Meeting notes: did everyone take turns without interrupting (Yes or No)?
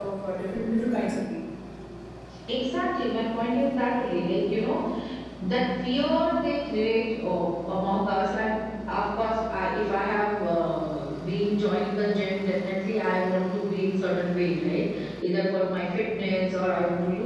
Yes